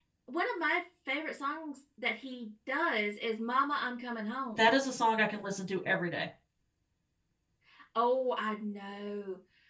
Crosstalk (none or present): none